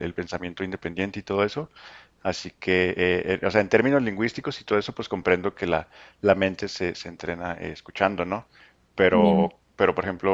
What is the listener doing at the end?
listening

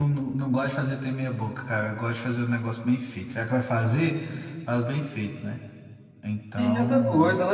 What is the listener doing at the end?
taking over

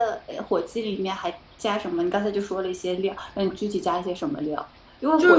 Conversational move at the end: listening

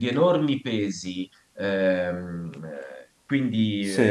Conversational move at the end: listening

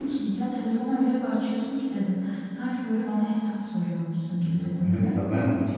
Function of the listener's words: taking over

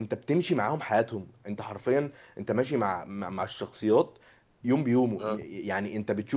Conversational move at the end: listening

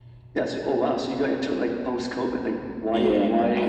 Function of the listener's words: taking over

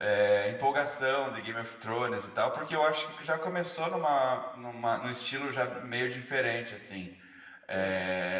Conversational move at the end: listening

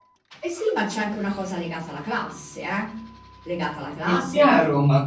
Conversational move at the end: taking over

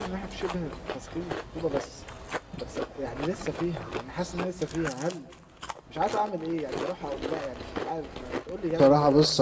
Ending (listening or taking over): taking over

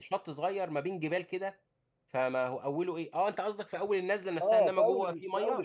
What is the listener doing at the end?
taking over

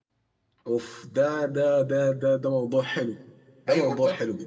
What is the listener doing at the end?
taking over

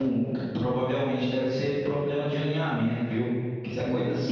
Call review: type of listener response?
listening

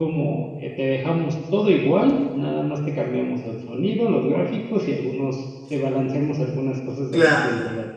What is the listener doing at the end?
taking over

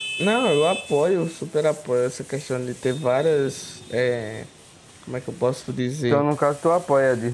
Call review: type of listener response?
taking over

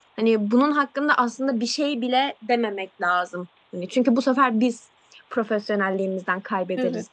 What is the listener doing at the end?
taking over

